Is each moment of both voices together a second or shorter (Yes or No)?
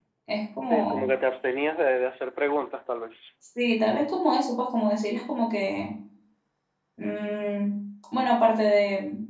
Yes